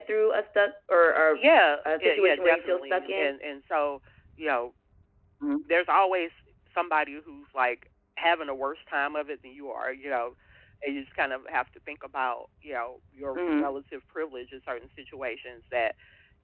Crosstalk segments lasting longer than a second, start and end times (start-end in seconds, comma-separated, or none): 2.0-3.4